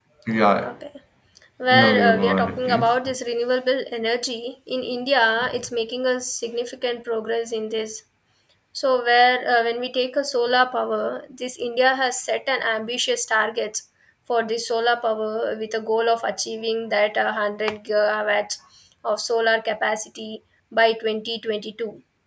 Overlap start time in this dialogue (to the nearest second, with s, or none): 2 s